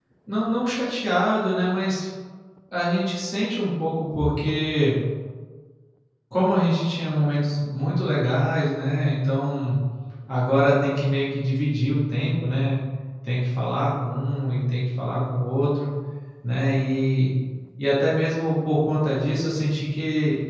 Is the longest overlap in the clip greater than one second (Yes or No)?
No